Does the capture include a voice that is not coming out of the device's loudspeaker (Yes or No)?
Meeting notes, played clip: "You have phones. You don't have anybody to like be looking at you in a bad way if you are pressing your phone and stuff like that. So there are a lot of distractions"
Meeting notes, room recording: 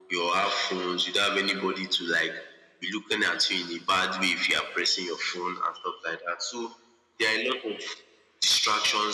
No